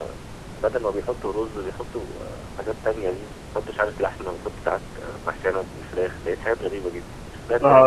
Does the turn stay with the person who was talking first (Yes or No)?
No